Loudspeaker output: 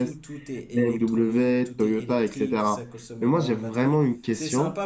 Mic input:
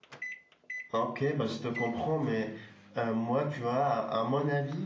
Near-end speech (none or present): present